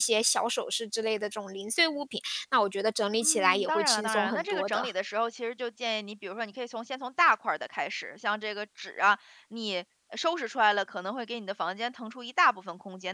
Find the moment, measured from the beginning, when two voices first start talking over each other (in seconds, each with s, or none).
3.2 s